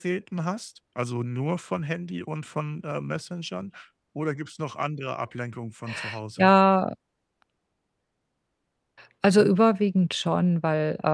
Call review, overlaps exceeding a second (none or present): none